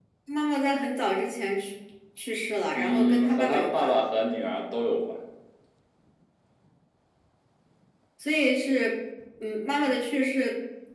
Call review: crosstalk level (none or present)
present